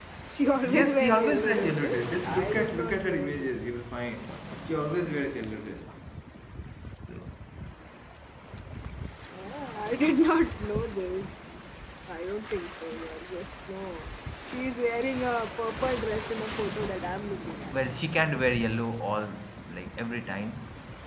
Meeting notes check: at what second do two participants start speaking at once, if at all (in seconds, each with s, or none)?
0.6 s